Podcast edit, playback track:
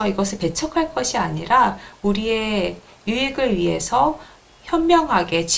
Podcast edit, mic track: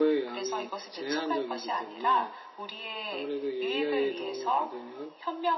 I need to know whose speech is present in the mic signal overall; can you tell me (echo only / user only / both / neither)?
both